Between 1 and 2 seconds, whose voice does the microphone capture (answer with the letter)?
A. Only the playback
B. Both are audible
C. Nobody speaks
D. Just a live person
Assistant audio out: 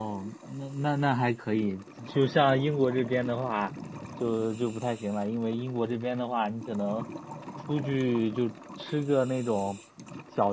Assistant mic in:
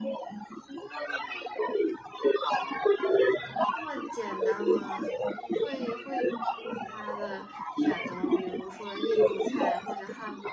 A